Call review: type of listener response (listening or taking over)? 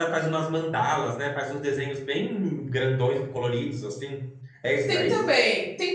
taking over